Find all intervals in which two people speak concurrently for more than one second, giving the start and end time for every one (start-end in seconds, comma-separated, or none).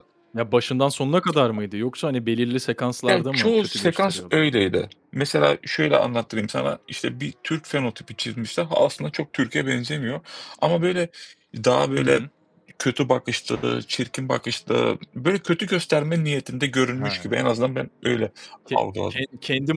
3.1-4.4